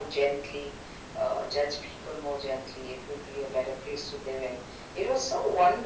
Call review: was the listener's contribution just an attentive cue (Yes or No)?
Yes